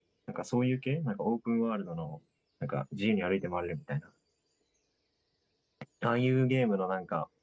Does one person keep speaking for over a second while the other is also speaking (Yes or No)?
No